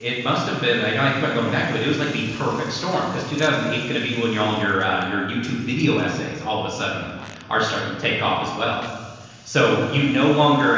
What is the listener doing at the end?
listening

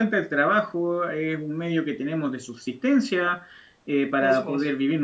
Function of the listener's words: listening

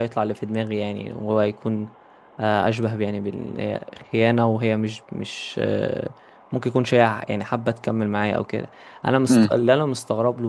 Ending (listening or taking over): listening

